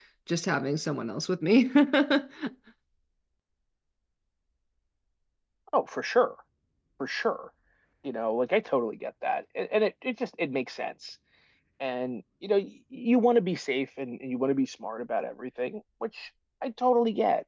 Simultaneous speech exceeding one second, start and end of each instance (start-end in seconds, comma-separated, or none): none